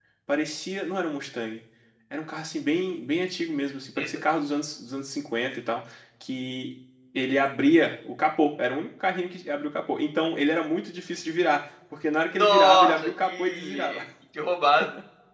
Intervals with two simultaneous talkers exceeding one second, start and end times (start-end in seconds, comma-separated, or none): 12.3-14.0